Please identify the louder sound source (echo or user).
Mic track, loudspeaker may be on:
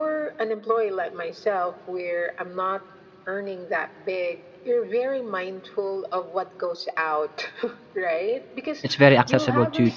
user